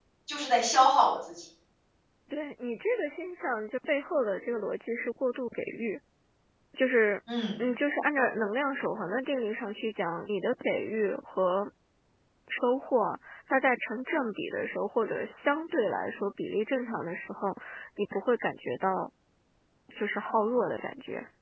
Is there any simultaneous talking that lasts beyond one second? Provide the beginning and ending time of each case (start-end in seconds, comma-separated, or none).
none